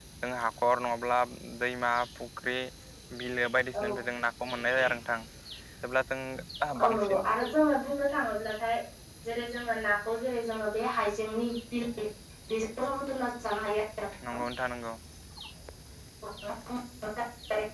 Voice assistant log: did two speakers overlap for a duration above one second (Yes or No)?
No